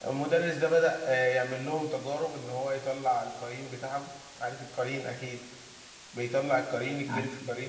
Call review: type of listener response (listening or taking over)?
listening